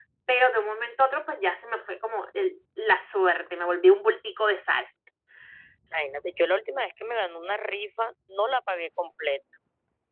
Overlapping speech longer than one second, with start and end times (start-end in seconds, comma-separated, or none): none